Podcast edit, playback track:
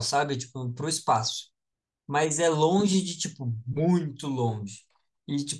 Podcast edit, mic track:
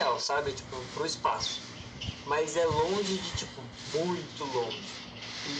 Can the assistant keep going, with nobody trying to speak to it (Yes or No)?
Yes